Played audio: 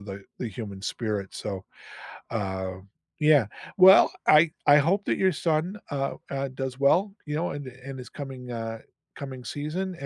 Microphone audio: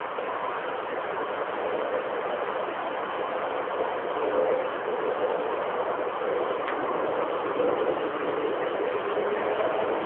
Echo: none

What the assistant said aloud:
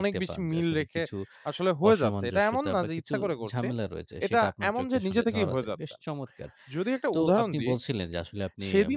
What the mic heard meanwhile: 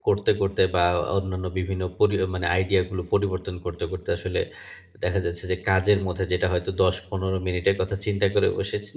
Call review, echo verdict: none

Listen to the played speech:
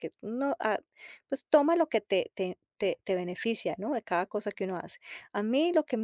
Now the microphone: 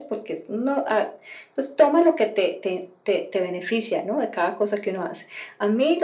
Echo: present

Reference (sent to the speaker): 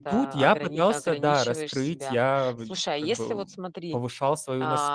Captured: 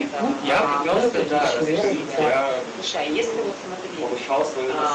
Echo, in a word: present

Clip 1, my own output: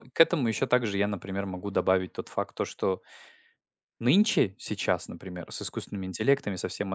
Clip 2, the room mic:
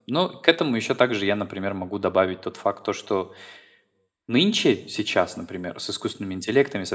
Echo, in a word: present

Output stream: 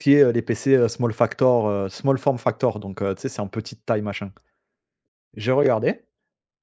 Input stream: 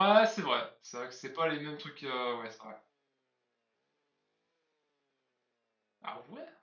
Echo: none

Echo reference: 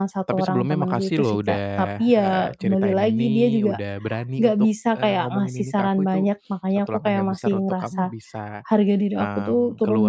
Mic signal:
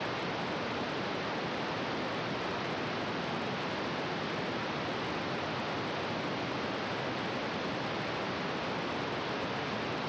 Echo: none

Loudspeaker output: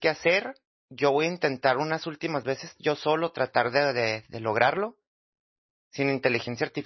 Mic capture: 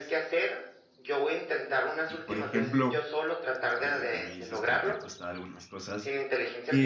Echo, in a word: present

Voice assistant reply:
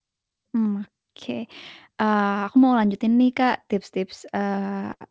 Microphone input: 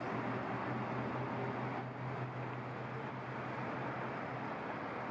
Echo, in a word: none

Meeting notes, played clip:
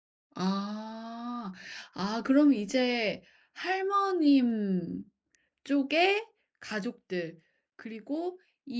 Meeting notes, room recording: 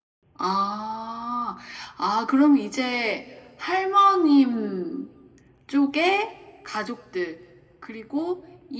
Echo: present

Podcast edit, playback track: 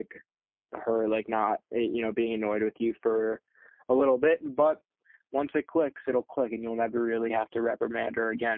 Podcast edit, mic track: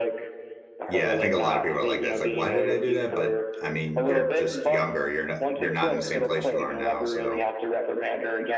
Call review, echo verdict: present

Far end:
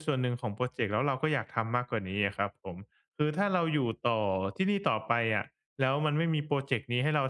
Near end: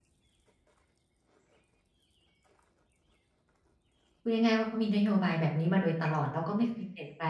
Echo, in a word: none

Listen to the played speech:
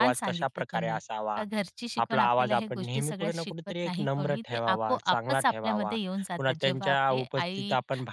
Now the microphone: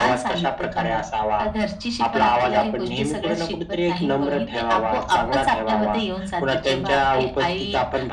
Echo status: present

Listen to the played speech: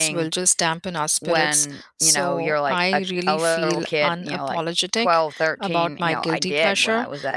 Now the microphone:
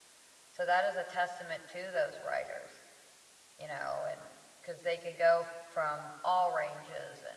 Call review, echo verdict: none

